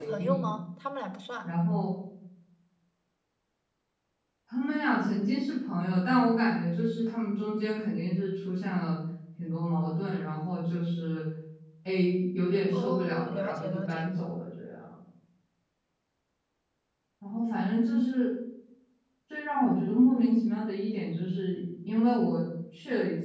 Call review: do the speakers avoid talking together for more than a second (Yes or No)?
No